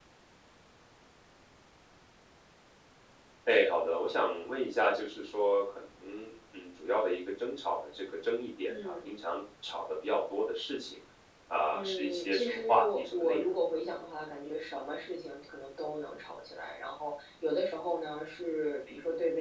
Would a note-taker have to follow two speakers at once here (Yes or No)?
Yes